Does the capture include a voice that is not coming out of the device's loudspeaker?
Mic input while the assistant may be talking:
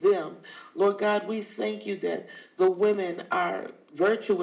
Yes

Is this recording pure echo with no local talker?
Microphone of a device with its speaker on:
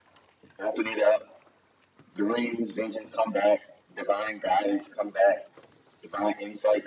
Yes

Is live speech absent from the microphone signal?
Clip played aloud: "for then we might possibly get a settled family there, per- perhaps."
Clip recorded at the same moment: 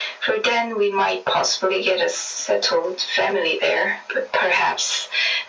Yes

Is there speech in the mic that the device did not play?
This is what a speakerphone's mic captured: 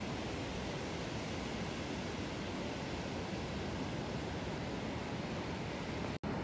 No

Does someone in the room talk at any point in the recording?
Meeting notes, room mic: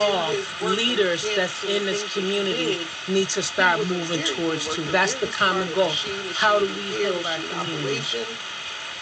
No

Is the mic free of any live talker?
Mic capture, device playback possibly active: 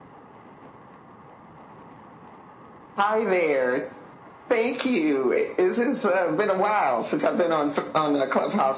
Yes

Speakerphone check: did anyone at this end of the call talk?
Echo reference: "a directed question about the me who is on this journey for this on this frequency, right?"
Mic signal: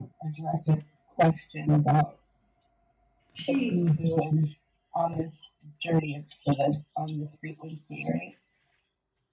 Yes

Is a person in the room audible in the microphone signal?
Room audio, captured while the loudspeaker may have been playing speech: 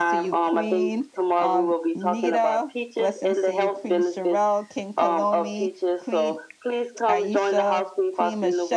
Yes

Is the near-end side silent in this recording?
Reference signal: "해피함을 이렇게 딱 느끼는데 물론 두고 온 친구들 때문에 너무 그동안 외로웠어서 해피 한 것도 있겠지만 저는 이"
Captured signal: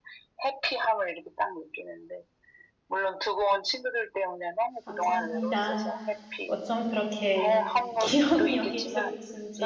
No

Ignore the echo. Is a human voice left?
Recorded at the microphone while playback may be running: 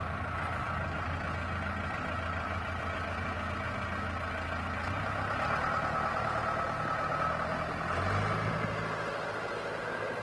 No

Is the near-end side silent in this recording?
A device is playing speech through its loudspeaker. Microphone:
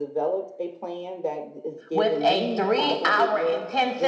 No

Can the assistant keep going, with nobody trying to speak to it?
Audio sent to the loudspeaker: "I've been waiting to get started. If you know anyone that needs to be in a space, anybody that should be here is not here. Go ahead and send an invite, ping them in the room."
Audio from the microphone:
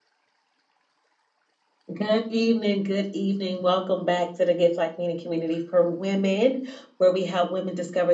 No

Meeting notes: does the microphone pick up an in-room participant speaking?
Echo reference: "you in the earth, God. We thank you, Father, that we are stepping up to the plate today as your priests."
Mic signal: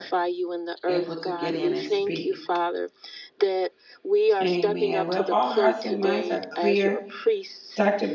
Yes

